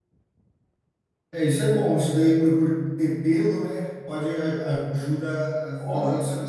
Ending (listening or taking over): listening